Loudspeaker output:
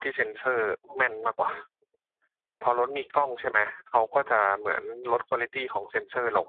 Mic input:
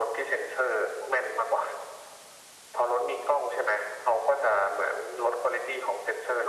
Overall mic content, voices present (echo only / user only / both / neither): echo only